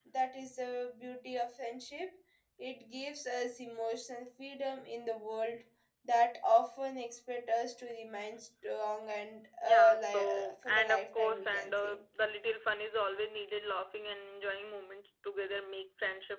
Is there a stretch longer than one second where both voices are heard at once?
Yes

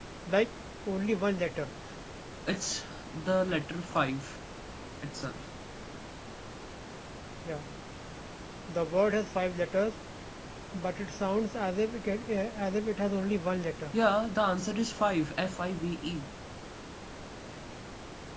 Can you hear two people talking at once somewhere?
No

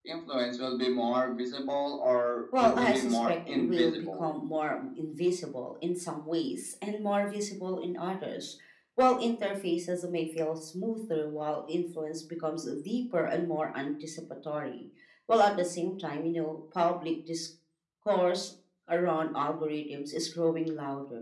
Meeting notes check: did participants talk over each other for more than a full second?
Yes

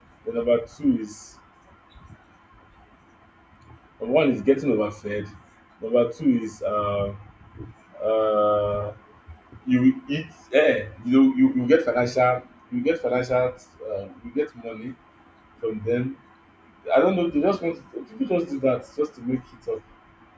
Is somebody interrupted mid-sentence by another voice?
No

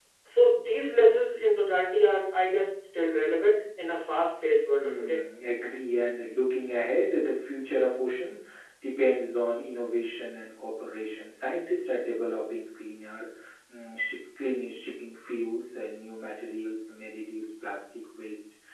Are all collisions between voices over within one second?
Yes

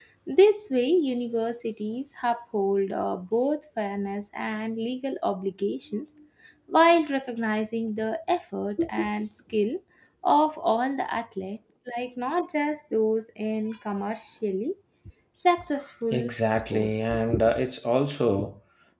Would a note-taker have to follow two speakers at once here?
Yes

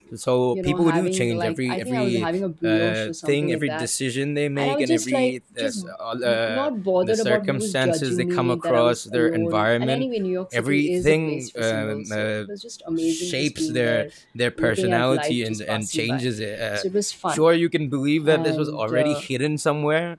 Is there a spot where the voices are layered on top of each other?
Yes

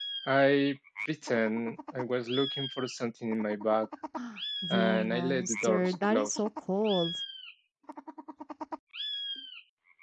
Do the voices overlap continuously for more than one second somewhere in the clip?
Yes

